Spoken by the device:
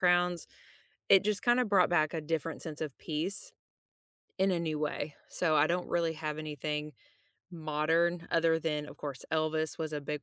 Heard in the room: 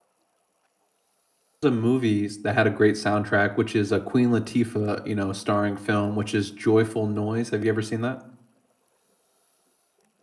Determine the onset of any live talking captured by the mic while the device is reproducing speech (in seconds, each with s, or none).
1.6 s